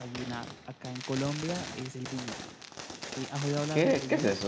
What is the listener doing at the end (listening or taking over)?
taking over